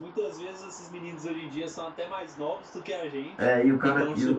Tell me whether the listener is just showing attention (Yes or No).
No